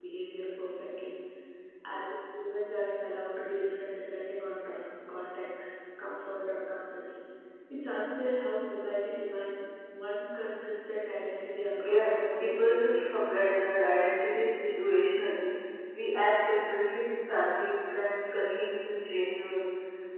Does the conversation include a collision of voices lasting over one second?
Yes, from 11.7 s

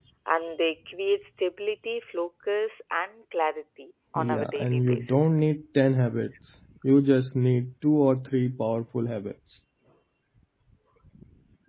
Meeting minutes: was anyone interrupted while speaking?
Yes, from 4.2 s

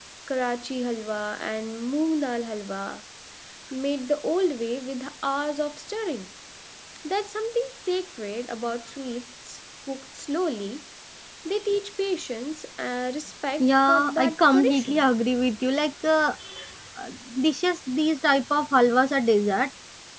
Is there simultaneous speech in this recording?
Yes, from 13.6 s

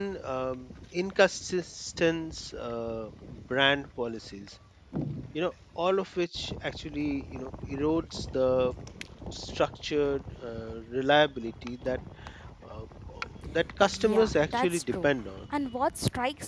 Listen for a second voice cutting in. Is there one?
Yes, from 13.8 s

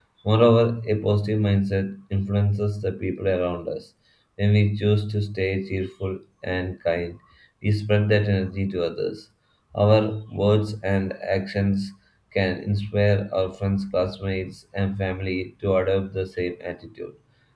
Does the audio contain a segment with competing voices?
No

